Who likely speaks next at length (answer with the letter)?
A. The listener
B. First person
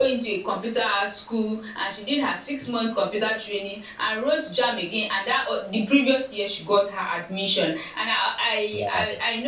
B